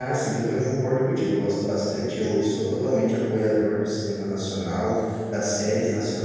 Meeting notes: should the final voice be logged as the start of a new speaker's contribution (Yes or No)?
No